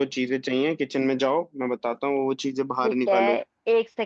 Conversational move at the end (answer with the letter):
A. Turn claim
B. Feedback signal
A